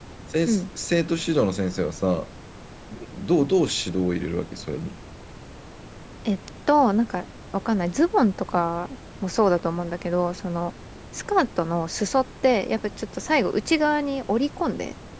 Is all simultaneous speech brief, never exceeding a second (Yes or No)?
Yes